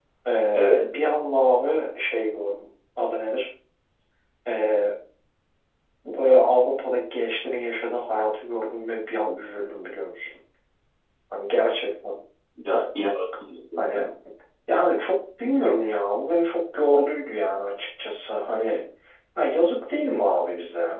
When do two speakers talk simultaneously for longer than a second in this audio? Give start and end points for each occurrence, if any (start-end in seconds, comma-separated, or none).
none